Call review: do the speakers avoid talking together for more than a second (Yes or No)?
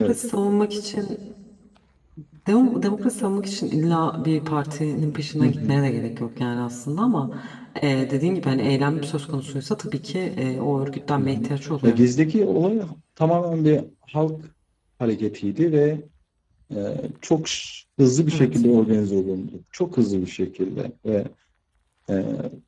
Yes